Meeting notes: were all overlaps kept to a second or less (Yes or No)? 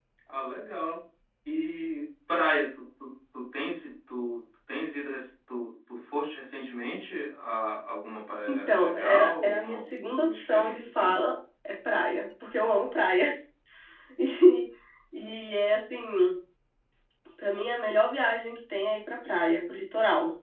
No